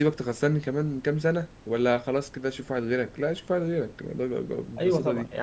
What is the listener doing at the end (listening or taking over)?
taking over